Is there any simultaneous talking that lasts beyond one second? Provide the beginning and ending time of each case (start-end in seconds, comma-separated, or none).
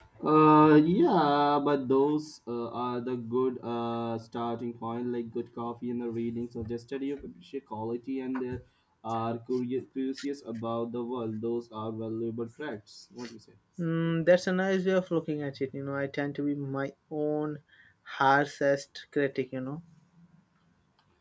none